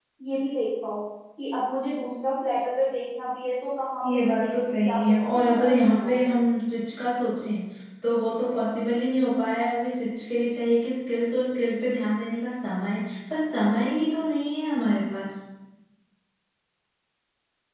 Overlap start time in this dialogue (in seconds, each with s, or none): 4.0 s